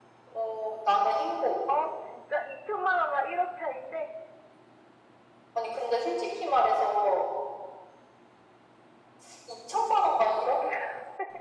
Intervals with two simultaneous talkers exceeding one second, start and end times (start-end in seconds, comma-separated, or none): none